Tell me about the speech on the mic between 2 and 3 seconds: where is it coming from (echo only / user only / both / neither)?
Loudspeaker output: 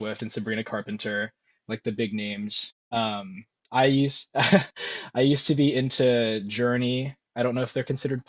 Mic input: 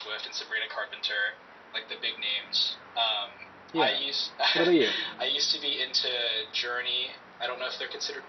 echo only